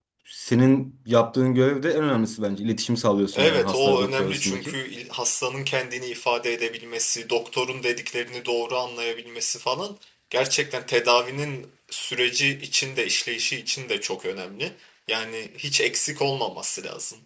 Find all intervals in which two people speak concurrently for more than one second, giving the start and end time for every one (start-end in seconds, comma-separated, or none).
3.3-4.7